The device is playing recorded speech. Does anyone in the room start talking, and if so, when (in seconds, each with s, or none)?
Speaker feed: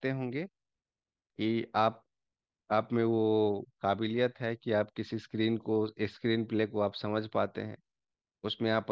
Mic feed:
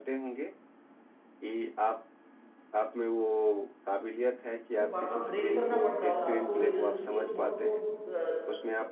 4.7 s